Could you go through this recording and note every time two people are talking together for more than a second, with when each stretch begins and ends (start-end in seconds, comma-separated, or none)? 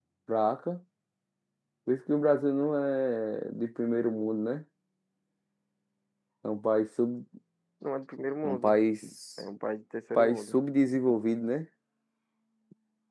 none